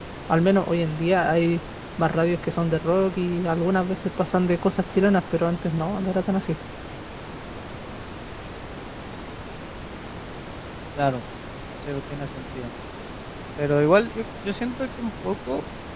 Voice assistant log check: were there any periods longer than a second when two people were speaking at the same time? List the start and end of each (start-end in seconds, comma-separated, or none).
none